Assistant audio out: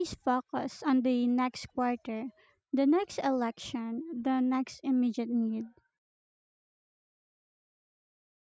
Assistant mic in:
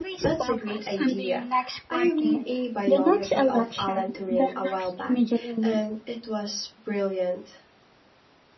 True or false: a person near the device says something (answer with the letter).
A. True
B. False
A